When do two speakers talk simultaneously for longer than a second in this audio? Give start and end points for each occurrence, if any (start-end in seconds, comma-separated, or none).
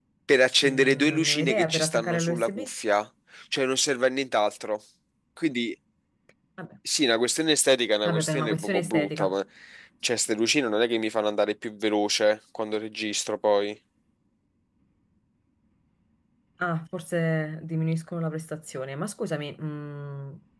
0.6-2.7, 8.0-9.3